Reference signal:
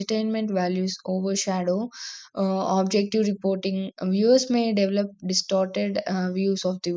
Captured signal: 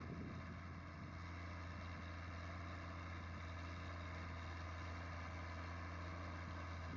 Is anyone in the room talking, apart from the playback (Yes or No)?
No